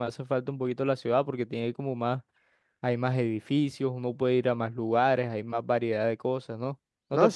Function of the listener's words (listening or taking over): taking over